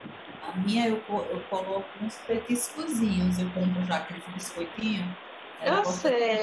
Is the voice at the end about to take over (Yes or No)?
Yes